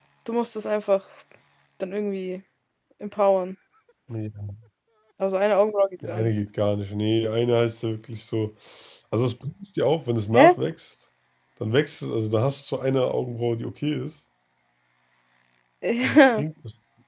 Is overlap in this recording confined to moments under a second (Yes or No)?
Yes